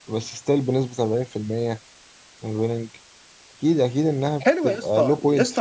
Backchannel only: No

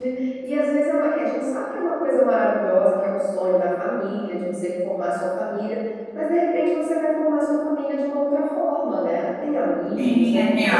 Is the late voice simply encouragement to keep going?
No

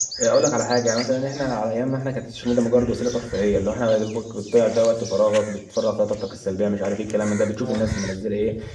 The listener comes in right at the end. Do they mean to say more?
No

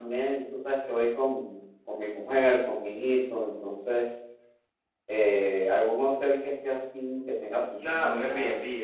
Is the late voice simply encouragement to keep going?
No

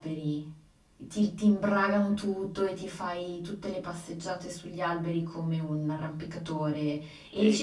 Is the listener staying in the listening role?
No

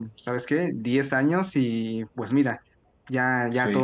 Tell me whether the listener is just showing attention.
Yes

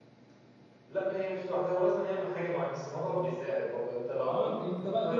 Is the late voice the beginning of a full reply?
Yes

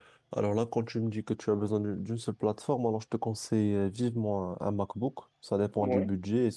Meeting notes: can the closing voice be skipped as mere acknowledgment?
Yes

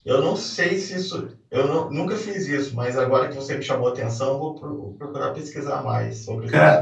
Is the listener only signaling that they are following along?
No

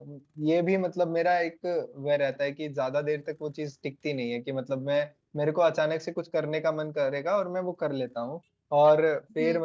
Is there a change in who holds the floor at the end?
No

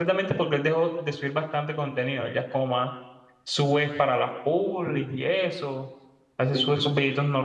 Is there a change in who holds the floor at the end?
No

